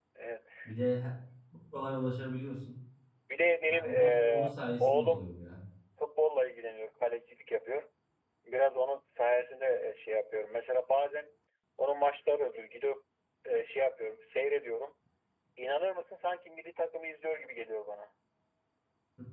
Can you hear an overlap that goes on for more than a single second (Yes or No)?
Yes